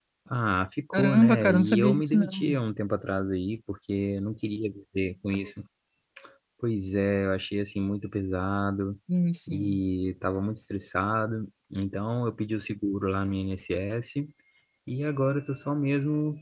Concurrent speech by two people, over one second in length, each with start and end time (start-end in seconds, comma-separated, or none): 0.9-2.6